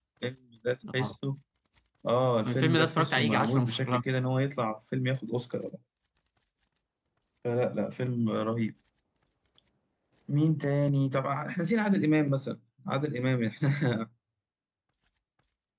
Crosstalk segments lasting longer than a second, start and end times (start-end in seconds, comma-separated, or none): 2.5-4.0